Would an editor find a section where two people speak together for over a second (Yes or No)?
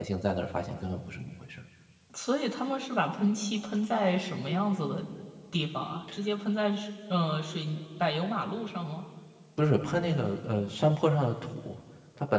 No